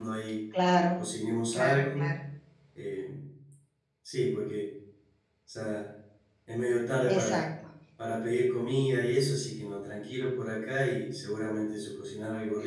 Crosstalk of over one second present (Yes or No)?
No